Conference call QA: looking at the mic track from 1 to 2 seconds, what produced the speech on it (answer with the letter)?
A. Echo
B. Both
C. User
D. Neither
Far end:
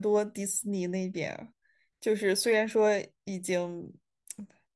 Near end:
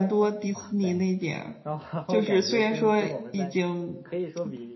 B